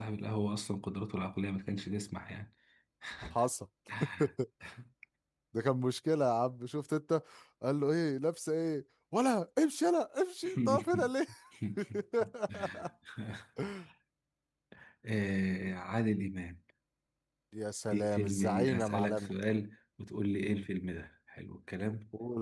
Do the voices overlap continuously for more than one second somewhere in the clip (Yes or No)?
Yes